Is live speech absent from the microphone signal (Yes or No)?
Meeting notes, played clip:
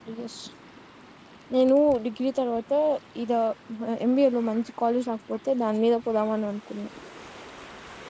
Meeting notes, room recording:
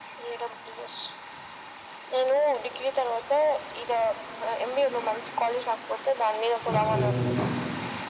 No